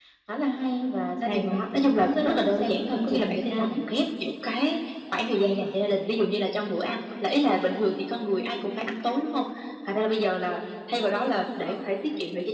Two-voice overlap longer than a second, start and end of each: 1.2-3.8

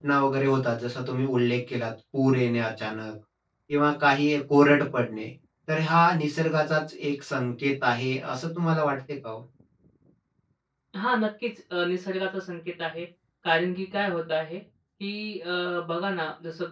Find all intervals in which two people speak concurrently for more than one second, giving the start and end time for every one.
none

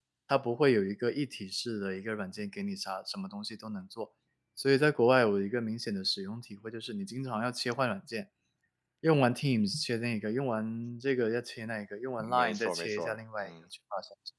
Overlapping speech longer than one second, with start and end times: 12.2-13.5

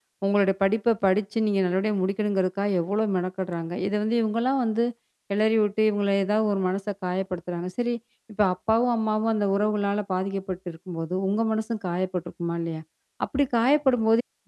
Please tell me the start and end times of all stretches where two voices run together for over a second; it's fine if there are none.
none

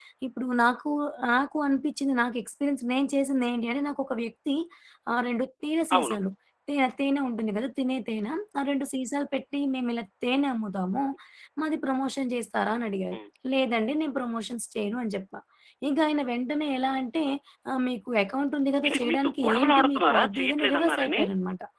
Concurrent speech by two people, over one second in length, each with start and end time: 18.9-21.2

